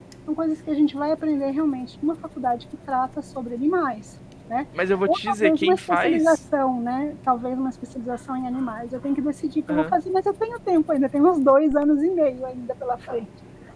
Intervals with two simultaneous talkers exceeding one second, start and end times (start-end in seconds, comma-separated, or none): 5.1-6.4